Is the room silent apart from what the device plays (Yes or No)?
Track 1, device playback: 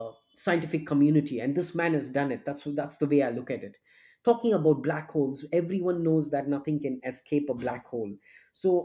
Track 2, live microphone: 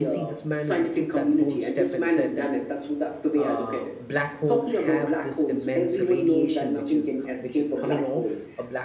No